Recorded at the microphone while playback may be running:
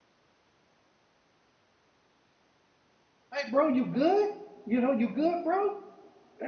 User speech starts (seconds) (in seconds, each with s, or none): 3.3 s